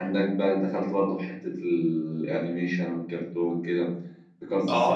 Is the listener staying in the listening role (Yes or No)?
No